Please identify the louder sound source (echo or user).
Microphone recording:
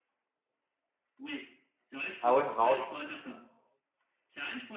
user